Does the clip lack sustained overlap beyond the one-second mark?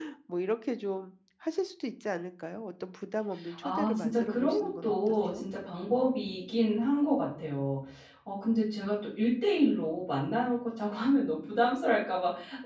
No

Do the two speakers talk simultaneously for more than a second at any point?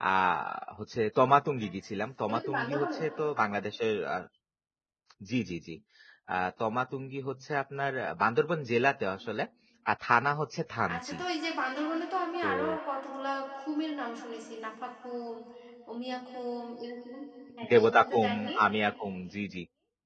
Yes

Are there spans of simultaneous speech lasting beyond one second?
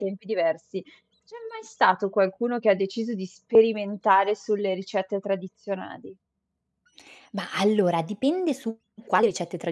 No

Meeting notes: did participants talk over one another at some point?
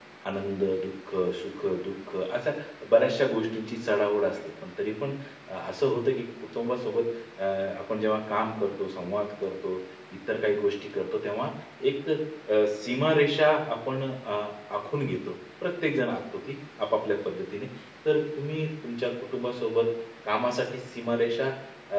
No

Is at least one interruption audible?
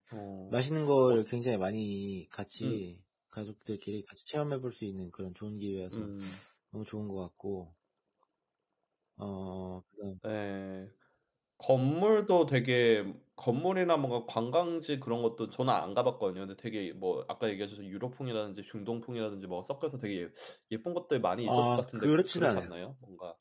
Yes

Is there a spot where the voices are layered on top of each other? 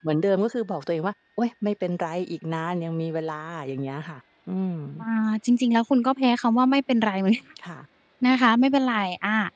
No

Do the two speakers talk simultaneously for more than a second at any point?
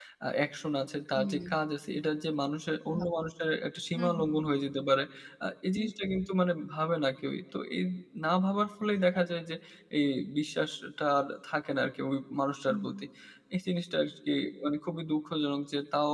No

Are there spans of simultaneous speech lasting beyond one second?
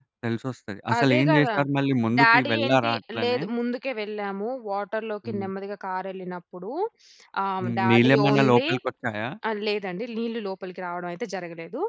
Yes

